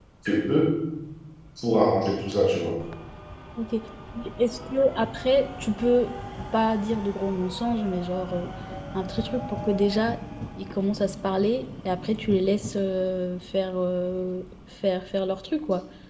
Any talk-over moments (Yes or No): No